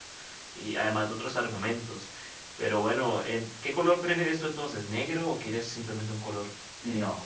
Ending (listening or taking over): taking over